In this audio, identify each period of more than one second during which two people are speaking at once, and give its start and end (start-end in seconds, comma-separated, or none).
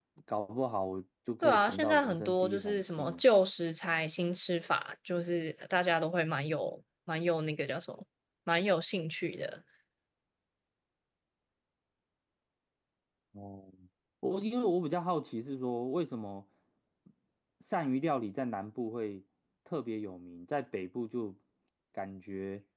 1.4-3.2